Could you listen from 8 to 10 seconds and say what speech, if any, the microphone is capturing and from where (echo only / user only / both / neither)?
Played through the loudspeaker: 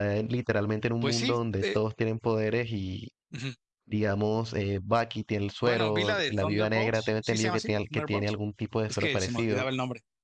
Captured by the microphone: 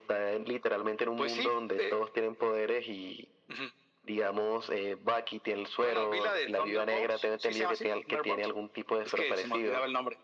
echo only